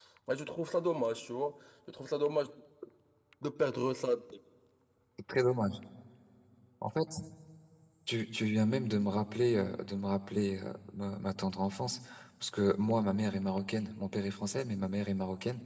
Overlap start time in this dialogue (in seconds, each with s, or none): none